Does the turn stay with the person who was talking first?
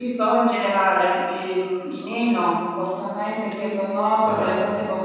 Yes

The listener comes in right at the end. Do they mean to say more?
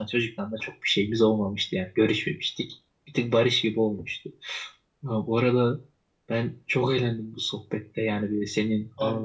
No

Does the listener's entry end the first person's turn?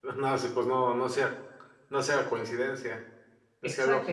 Yes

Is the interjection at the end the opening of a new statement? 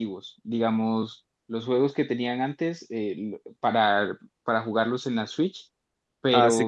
Yes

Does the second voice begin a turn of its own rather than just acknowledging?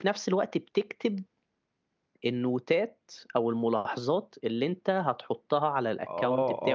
Yes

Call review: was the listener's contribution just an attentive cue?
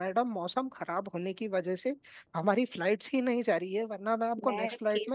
No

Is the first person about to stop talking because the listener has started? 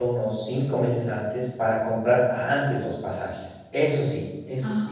Yes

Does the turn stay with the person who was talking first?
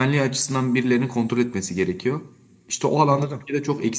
Yes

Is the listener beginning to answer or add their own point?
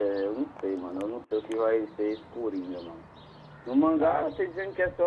No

